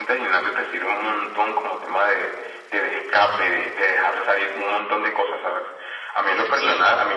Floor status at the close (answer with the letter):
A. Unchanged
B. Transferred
A